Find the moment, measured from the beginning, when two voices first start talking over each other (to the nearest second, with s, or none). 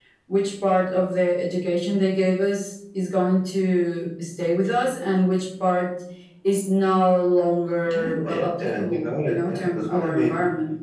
8 s